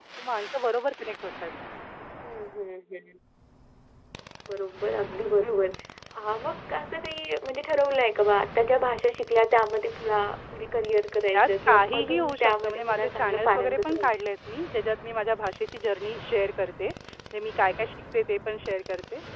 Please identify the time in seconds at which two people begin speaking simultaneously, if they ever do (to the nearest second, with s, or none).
11 s